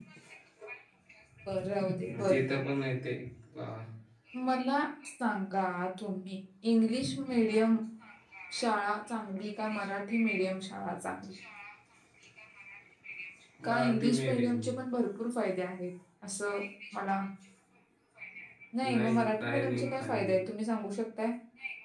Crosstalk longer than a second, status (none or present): present